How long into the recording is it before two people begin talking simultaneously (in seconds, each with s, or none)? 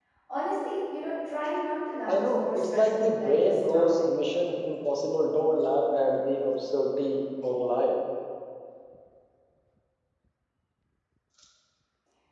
2.1 s